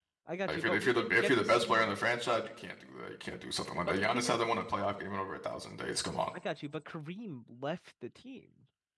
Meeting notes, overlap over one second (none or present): present